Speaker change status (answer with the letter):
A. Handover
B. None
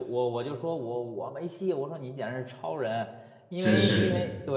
B